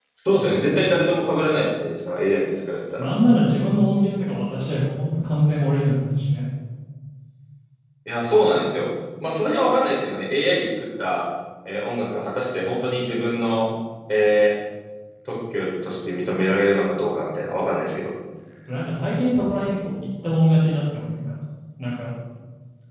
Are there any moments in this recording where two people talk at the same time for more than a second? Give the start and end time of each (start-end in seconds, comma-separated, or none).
none